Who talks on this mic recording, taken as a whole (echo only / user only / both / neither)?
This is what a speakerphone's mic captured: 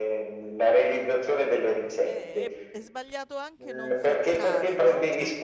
both